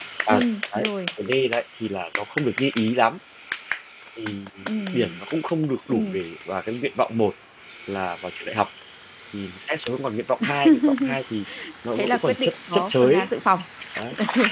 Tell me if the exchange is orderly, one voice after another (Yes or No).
No